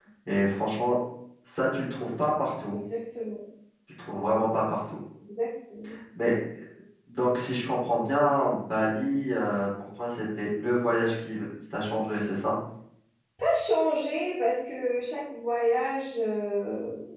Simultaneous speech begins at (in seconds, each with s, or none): none